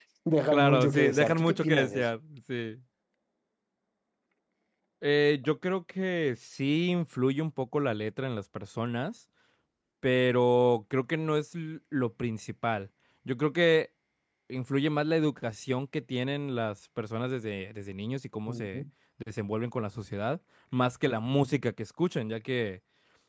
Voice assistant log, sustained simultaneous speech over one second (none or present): present